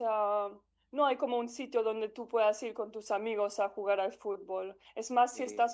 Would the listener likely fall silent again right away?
Yes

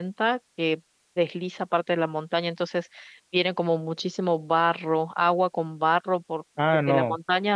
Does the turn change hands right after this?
Yes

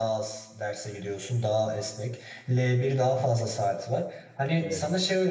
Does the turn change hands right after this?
No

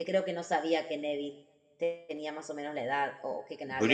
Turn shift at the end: Yes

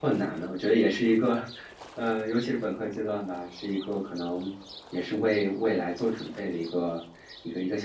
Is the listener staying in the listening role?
No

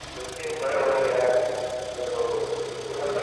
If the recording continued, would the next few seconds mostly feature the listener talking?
No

